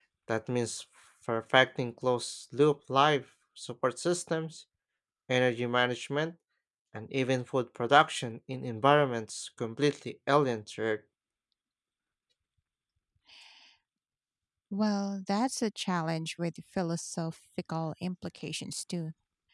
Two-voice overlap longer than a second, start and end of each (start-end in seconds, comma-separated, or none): none